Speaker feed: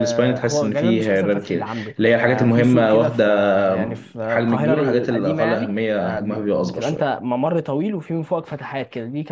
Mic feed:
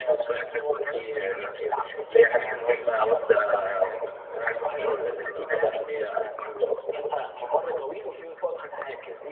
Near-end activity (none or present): none